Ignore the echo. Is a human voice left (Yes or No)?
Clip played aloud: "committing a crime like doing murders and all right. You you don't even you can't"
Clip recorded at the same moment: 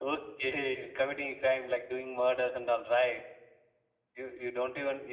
No